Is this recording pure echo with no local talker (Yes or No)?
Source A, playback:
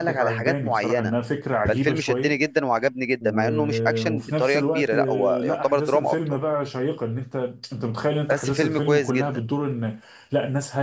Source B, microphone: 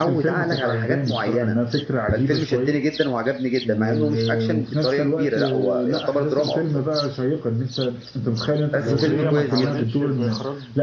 No